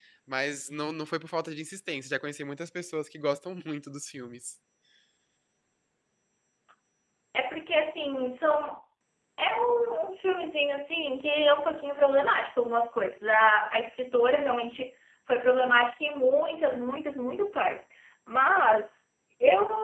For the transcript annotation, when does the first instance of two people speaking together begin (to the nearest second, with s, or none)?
none